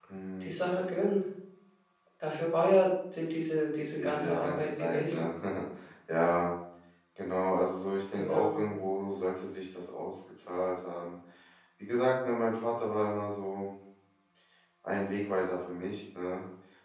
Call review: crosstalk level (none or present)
present